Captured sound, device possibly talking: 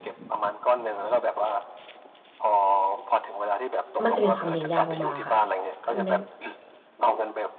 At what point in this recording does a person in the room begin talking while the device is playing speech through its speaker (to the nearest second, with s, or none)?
4 s